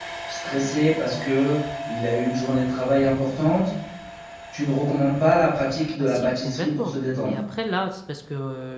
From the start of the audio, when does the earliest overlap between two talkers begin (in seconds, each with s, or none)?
6.0 s